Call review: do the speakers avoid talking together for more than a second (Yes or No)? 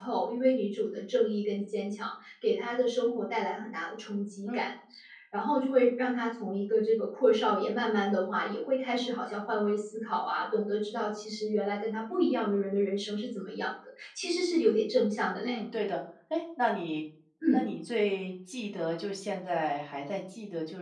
Yes